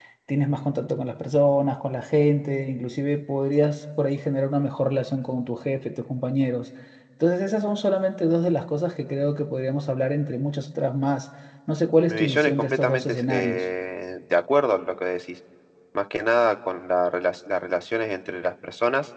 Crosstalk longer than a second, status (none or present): present